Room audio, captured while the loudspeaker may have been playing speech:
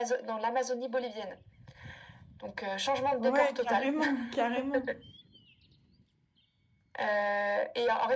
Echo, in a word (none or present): present